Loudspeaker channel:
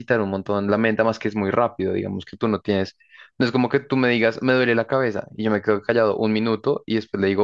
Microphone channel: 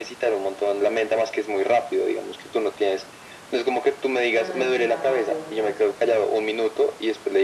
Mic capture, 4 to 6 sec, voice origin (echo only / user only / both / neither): both